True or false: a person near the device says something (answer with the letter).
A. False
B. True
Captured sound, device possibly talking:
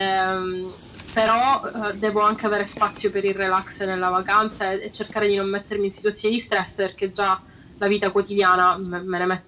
A